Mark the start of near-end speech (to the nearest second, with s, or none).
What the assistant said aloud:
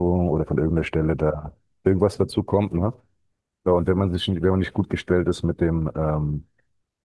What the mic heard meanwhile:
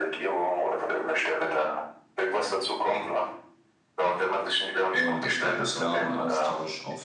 5 s